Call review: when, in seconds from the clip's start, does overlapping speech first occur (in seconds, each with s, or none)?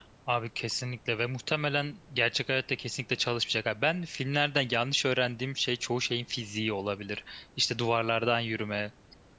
none